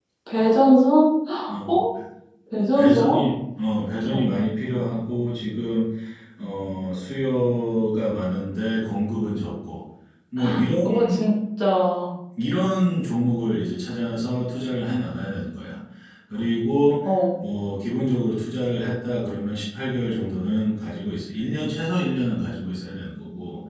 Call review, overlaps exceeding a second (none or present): none